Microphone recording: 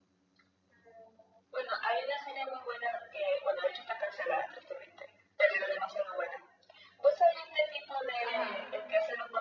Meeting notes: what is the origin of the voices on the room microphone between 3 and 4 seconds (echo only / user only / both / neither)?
echo only